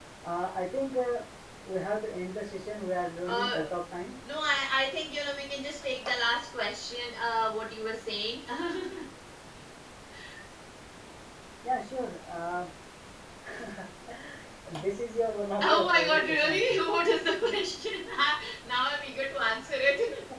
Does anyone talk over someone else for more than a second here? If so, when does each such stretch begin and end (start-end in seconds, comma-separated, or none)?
15.6-16.8